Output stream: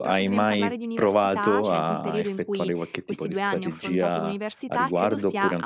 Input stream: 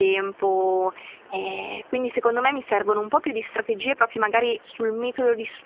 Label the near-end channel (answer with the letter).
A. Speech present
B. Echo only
A